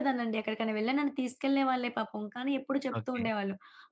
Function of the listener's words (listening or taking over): listening